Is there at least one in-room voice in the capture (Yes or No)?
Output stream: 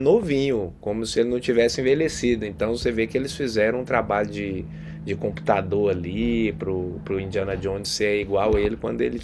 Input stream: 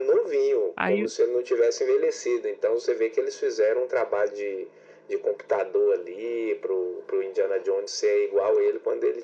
Yes